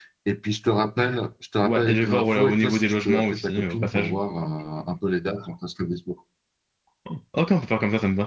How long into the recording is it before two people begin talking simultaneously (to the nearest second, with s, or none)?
2 s